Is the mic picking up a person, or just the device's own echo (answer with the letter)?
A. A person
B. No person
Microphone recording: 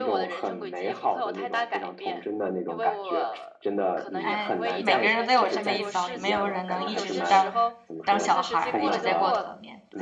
A